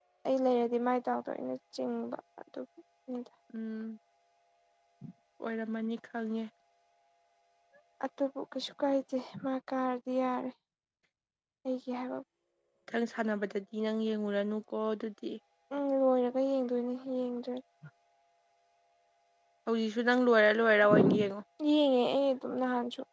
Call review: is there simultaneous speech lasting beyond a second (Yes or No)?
No